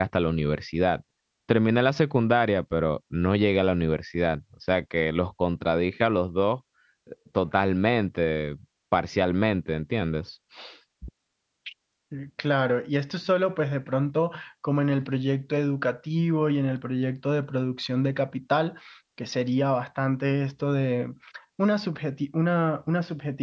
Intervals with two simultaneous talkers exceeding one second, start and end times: none

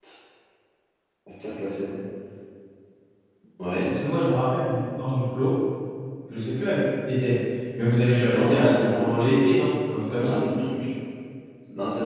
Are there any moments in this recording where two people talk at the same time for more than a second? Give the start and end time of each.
8.3-9.5

